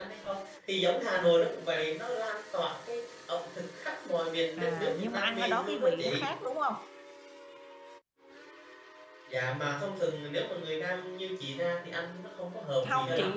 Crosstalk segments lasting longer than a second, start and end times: 4.6-6.3

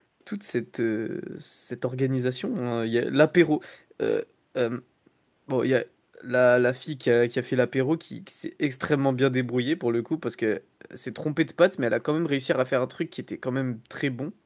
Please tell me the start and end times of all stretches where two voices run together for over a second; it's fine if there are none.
none

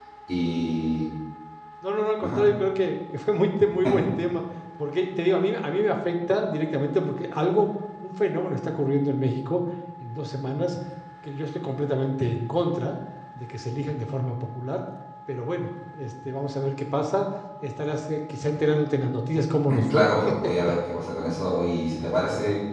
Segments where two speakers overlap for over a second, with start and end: none

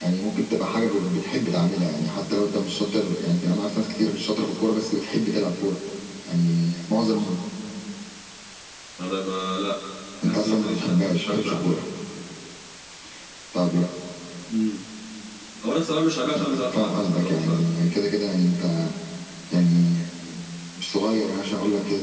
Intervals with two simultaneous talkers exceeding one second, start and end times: 10.2-11.7, 16.4-17.6

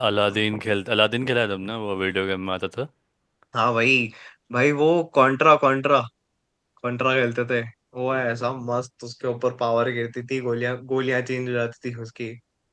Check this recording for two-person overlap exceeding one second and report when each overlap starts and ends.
none

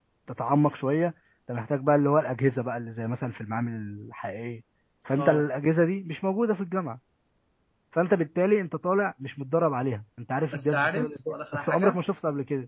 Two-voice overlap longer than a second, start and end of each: 10.5-12.0

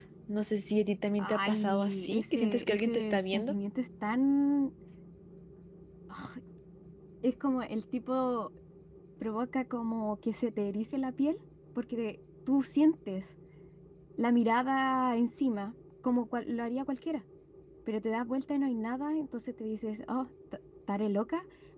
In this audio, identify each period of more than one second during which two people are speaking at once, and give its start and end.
1.2-3.5

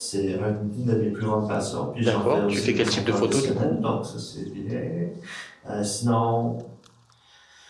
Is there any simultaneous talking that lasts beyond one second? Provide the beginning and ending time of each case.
2.0-3.8

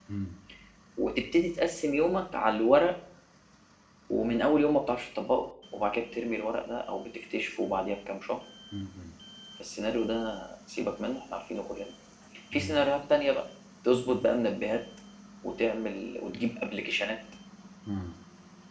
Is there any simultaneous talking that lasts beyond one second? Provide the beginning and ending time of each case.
none

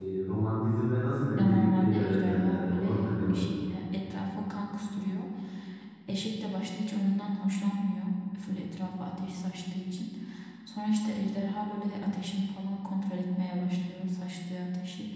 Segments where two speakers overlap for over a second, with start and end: 1.4-3.5

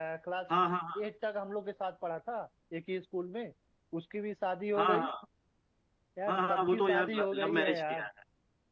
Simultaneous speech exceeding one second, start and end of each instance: 6.3-8.1

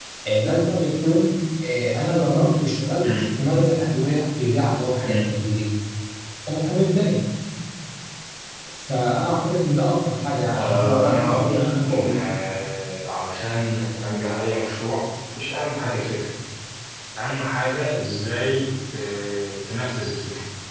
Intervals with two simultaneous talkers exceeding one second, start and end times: 10.6-12.2

